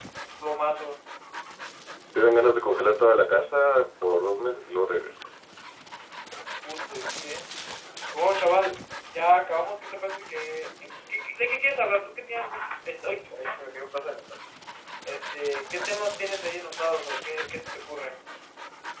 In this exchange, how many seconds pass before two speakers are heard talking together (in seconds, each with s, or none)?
none